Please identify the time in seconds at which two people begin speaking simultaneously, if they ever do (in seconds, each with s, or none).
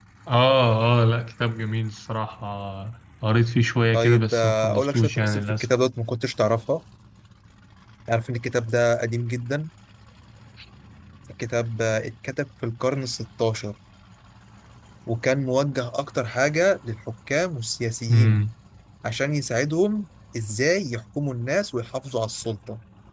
3.9 s